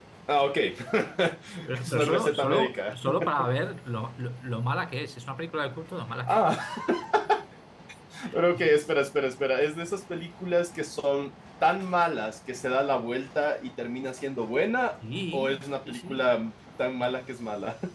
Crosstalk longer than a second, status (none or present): present